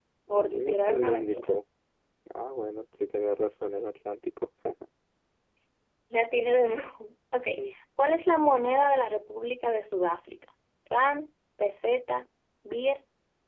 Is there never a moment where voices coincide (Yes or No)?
No